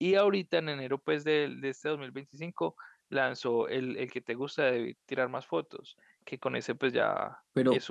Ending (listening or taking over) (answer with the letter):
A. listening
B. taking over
B